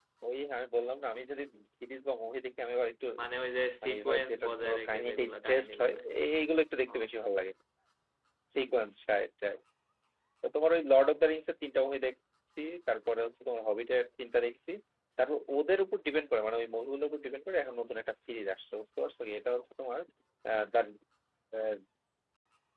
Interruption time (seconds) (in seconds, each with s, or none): 3.8 s